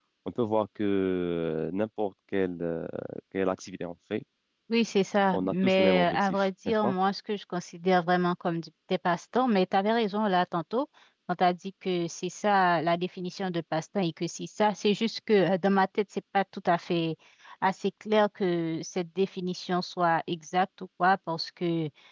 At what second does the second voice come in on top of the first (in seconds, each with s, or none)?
5.3 s